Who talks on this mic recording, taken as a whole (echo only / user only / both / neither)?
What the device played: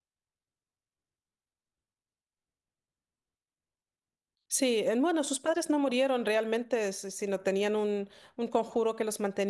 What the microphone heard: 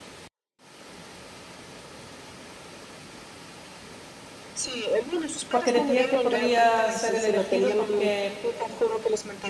both